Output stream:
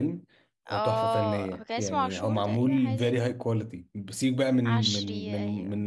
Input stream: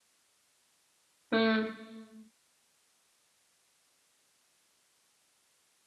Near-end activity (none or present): present